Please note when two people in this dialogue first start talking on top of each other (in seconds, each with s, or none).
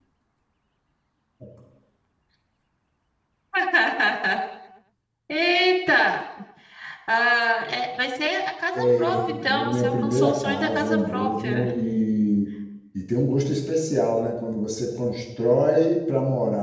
8.7 s